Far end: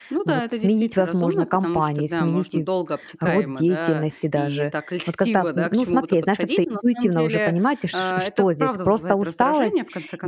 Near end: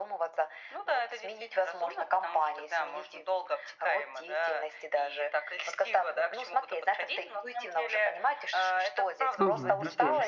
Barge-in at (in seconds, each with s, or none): 9.4 s